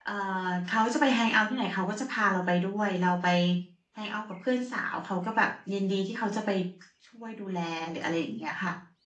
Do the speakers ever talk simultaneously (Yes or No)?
No